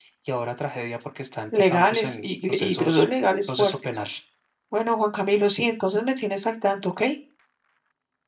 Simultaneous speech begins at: 2 s

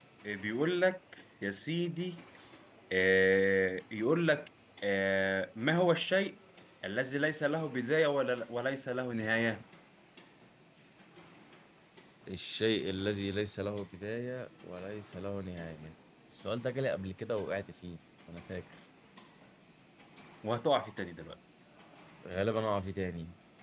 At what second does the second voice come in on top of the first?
none

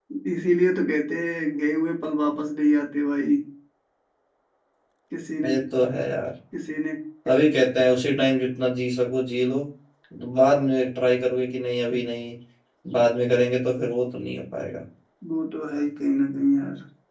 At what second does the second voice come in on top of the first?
none

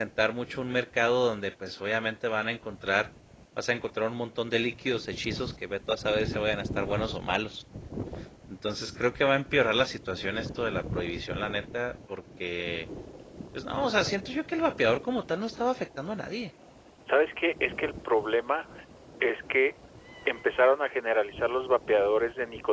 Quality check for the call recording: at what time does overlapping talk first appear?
none

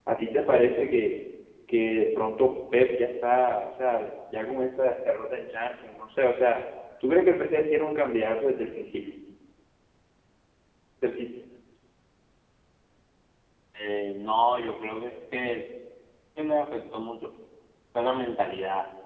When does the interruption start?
none

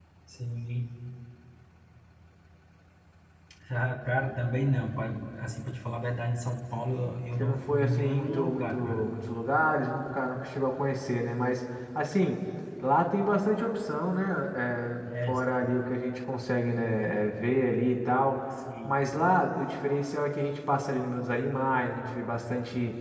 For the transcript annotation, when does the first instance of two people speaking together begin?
7 s

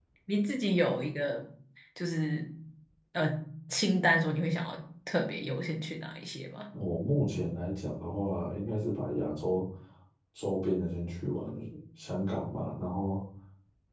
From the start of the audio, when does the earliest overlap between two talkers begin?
none

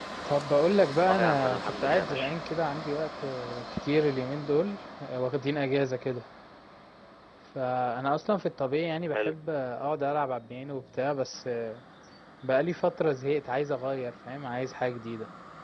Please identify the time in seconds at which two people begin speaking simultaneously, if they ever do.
1 s

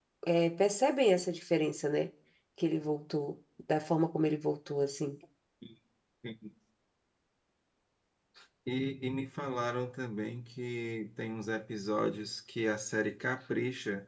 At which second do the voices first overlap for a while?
none

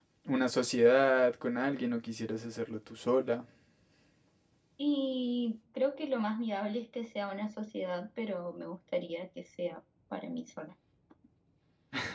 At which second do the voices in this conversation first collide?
none

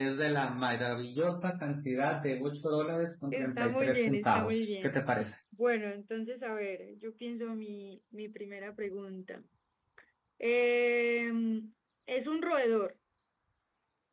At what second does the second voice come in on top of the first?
3 s

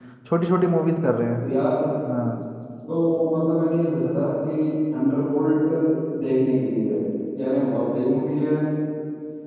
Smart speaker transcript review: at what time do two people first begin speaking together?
none

